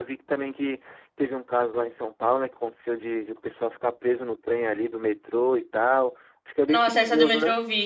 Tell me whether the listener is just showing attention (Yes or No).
No